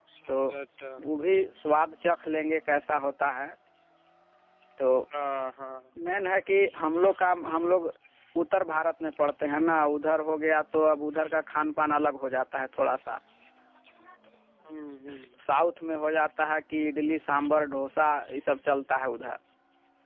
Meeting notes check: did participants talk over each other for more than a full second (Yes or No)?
No